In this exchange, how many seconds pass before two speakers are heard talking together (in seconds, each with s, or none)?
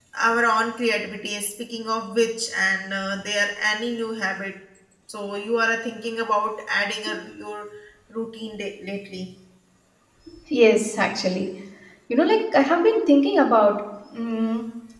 none